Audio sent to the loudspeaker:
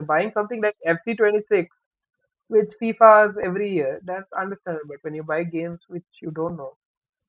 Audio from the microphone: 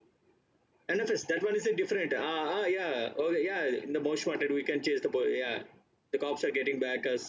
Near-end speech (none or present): present